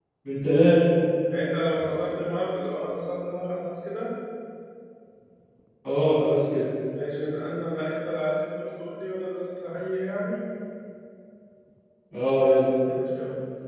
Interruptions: none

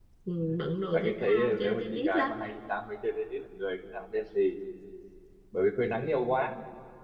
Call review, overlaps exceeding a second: present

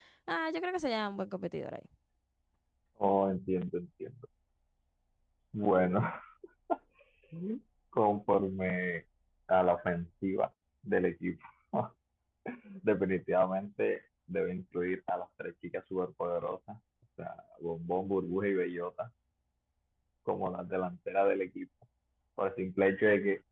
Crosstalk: none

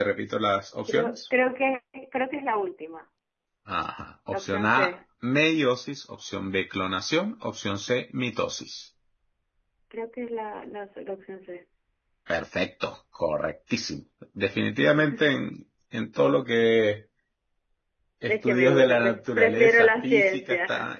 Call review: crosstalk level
present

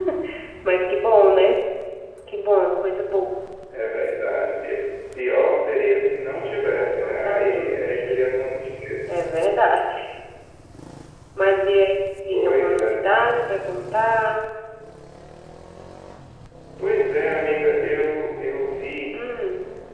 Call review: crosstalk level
present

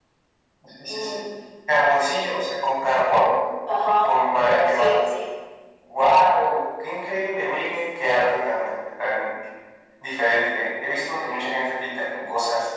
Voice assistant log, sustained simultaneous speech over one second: none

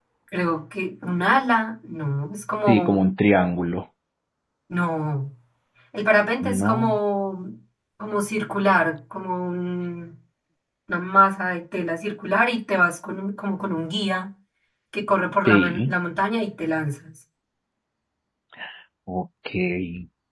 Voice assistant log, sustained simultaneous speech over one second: none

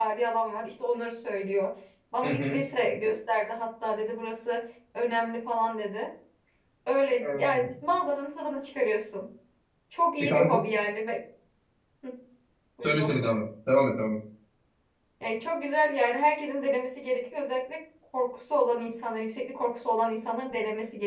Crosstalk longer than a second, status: none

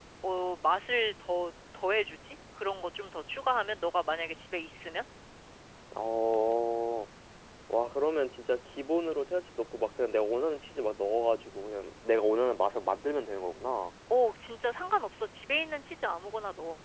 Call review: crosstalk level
none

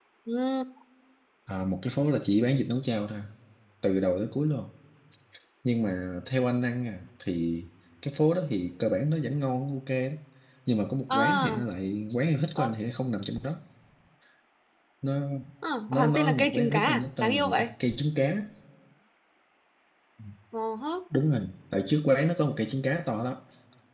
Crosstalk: present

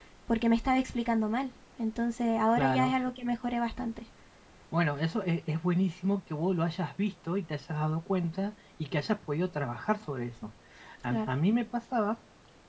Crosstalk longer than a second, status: none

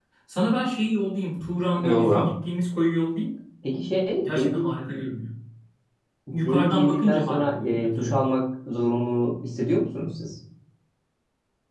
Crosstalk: present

